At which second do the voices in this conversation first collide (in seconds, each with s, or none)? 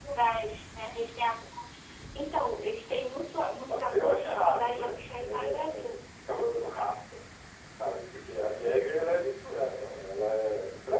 3.7 s